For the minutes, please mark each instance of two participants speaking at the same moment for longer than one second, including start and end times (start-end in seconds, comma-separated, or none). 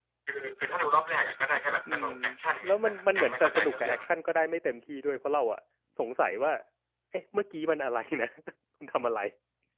2.6-4.0